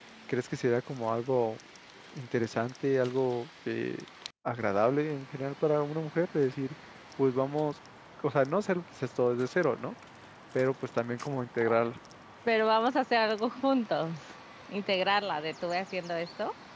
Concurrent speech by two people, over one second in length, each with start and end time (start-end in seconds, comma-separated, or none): none